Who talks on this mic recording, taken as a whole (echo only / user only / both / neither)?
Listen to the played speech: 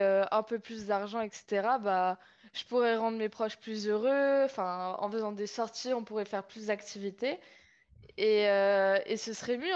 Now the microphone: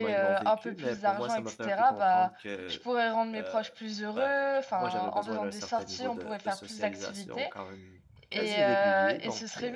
both